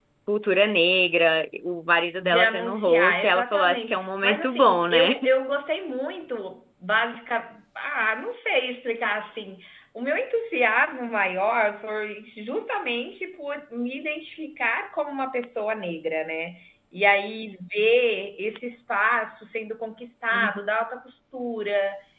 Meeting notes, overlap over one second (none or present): present